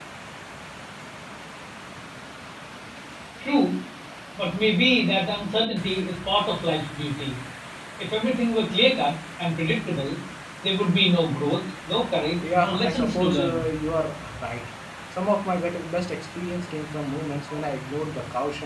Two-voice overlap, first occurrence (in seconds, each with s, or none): 12.3 s